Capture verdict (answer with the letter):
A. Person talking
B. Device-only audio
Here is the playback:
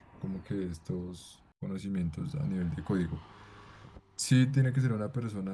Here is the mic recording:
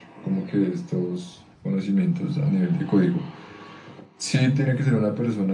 B